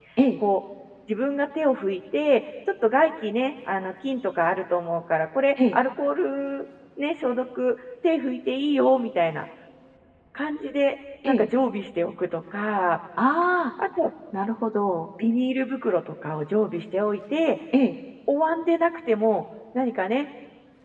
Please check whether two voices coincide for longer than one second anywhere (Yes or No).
No